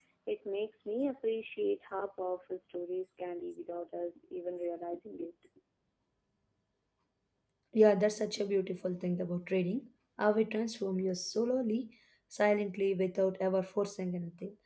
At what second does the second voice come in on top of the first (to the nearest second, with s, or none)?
none